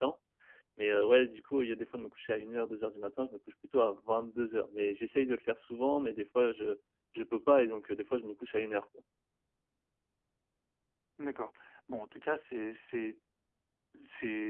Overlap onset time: none

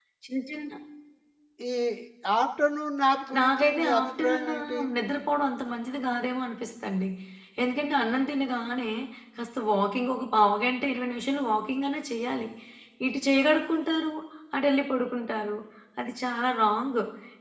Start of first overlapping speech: 3.3 s

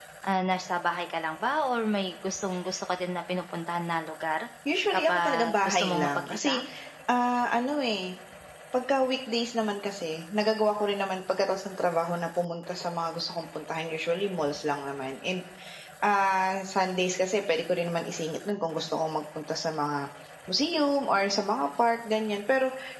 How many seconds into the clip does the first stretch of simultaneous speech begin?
4.9 s

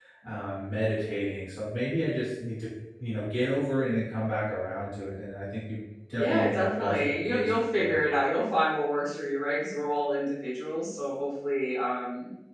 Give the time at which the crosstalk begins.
6.2 s

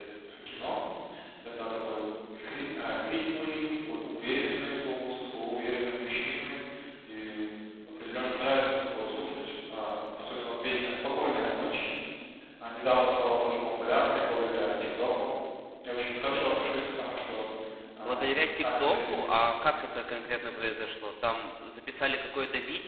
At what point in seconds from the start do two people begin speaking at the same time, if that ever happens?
18.0 s

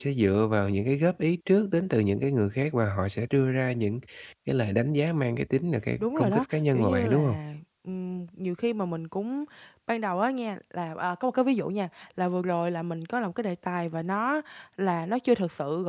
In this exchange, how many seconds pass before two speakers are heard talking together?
6.0 s

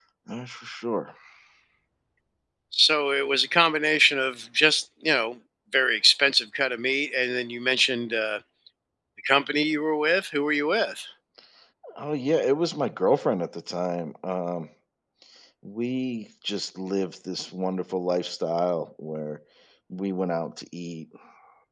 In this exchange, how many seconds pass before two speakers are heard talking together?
none

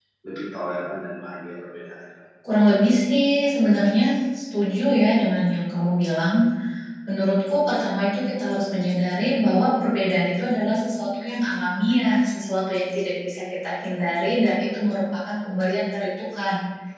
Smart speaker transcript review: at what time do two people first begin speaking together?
none

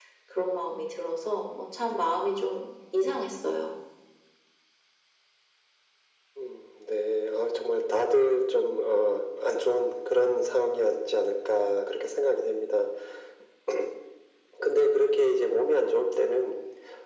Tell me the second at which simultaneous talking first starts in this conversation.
none

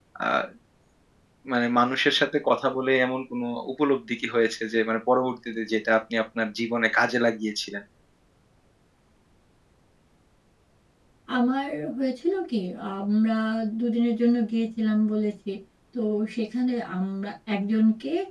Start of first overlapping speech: none

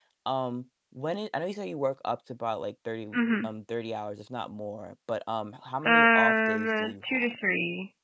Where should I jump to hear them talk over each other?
5.8 s

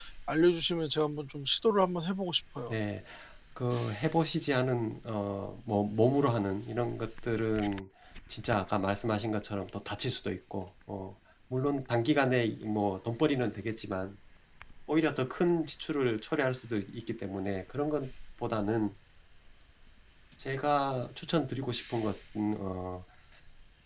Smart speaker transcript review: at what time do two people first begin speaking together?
none

